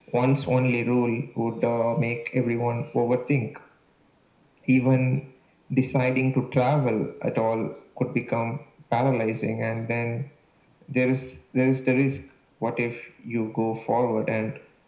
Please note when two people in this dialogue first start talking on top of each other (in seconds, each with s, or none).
none